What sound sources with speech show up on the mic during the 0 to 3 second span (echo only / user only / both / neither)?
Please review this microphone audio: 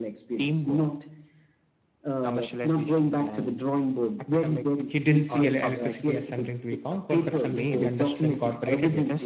echo only